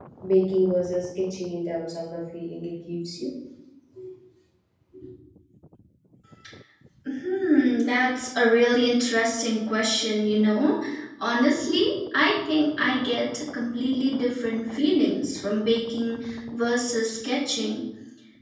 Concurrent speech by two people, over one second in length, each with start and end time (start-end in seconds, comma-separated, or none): none